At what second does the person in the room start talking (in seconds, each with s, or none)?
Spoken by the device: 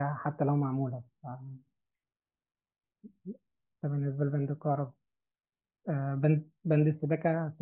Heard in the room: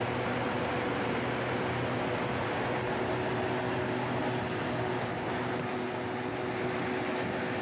none